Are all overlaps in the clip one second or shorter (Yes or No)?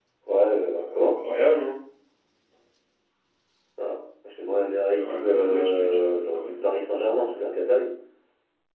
No